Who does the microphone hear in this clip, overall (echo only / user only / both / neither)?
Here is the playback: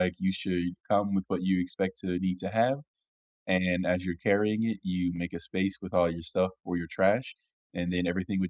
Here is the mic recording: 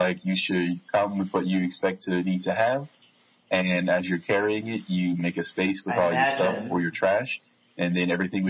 both